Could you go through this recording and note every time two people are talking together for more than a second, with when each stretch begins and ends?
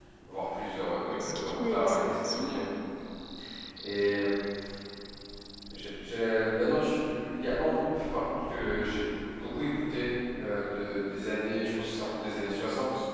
1.1-2.7

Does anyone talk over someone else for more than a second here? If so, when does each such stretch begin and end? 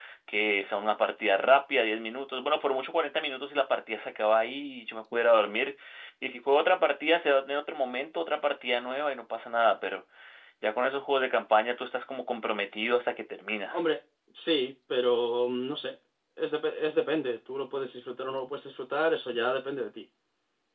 none

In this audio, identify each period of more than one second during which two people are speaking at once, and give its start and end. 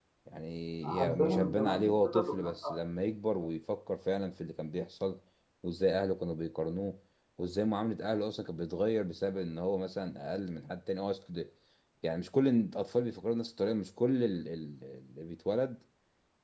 1.0-2.7

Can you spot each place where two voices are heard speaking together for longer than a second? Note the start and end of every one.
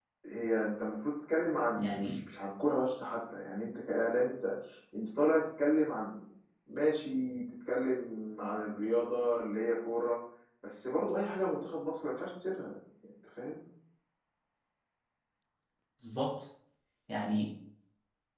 none

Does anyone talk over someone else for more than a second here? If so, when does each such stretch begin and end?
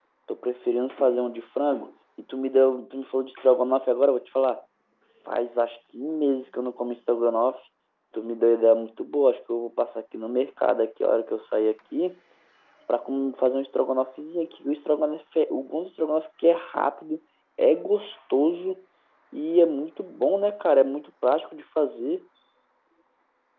none

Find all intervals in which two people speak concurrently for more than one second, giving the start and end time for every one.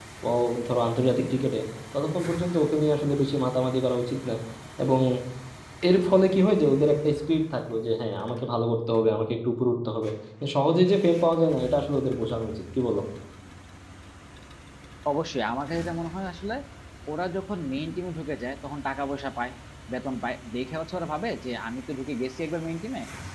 none

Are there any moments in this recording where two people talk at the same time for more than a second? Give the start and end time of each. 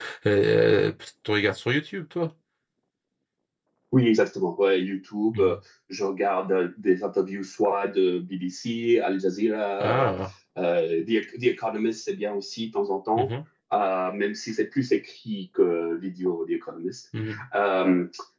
none

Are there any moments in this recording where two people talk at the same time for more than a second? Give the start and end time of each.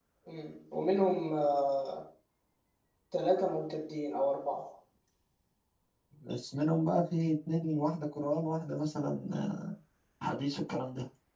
none

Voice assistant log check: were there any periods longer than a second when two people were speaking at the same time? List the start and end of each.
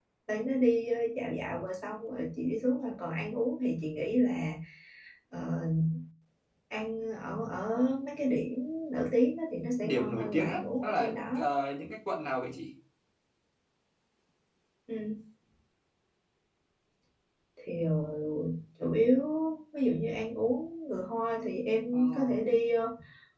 9.7-11.2

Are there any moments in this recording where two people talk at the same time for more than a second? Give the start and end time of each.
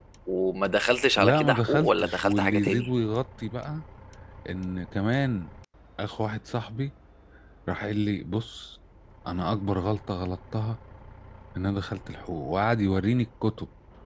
1.2-2.9

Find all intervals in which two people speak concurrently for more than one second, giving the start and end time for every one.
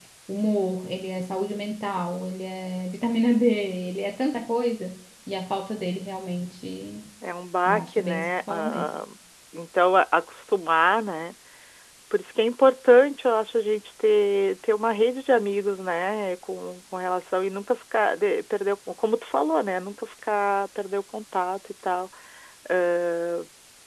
7.7-8.9

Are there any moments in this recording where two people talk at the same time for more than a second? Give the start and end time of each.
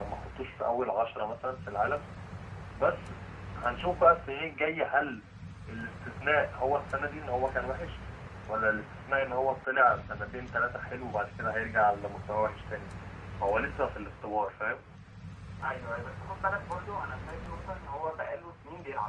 none

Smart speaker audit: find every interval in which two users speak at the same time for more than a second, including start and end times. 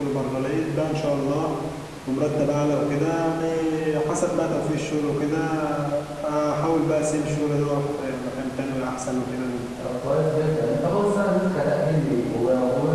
none

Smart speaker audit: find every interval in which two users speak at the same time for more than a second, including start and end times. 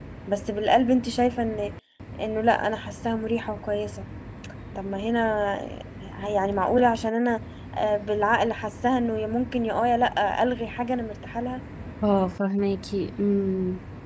none

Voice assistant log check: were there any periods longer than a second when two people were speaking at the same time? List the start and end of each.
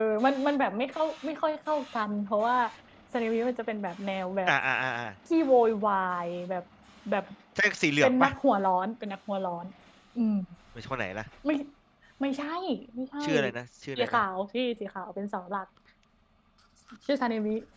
none

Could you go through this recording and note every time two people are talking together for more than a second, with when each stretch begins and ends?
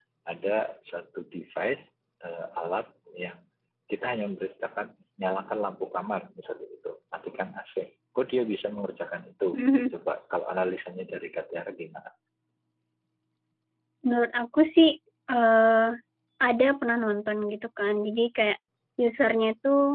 none

